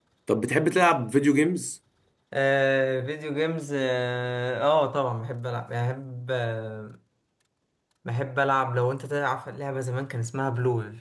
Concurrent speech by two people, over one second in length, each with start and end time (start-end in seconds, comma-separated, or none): none